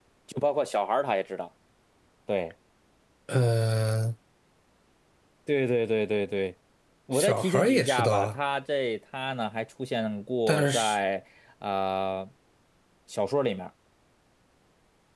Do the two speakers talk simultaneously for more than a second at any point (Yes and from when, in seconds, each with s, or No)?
Yes, from 7.1 s